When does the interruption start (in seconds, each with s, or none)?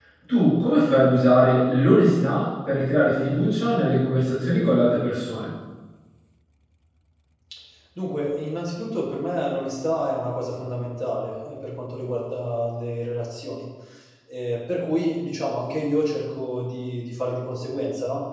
none